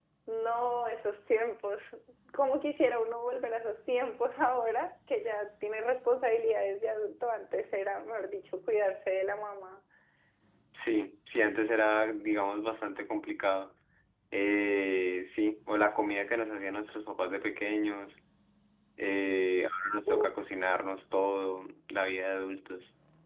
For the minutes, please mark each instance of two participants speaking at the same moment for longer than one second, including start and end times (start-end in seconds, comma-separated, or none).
none